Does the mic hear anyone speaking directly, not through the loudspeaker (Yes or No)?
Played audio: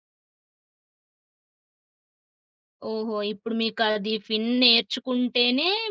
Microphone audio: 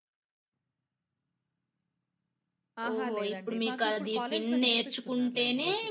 Yes